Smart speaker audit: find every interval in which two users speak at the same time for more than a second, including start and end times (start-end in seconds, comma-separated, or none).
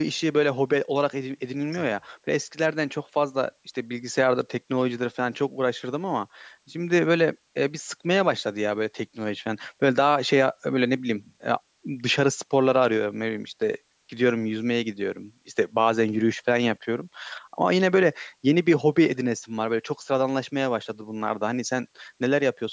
none